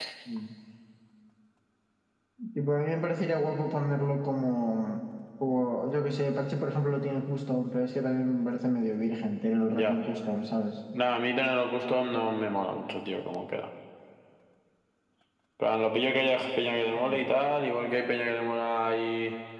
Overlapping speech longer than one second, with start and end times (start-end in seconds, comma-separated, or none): none